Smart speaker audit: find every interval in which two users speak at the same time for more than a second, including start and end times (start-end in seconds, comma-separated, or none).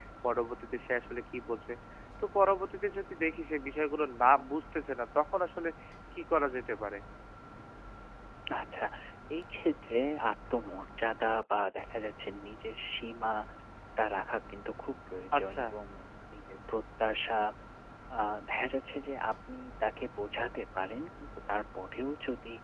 none